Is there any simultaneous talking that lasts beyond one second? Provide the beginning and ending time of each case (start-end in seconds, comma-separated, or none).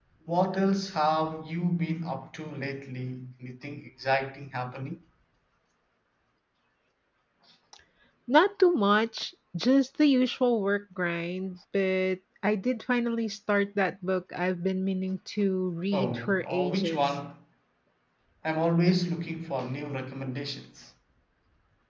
15.9-17.1